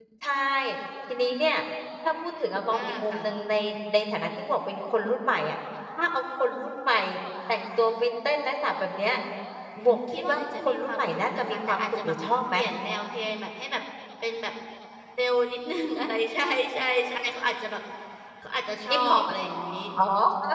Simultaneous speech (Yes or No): Yes